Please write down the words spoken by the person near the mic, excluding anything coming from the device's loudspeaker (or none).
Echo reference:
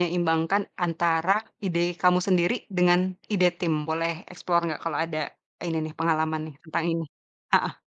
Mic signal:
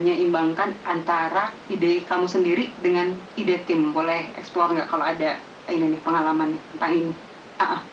none